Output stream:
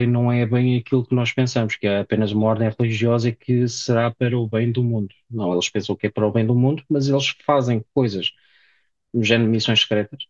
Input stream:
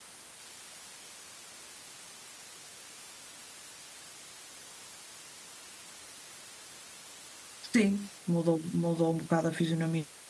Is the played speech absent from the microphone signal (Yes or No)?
Yes